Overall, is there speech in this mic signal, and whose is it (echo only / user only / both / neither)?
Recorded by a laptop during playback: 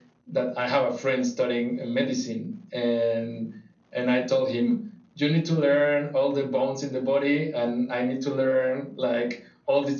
echo only